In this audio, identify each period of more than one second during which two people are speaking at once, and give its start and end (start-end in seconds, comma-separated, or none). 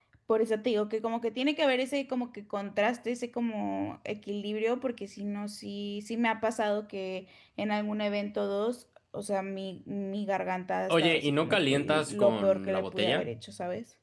10.9-13.2